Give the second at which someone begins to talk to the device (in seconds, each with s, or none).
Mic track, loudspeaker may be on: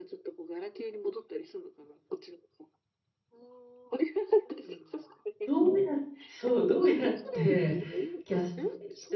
5.4 s